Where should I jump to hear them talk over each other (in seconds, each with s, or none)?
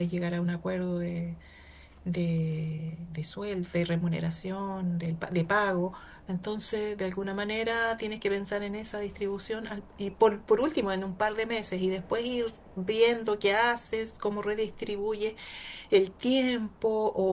none